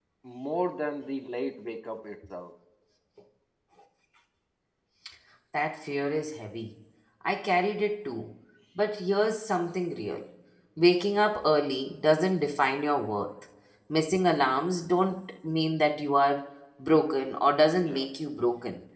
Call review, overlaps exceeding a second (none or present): none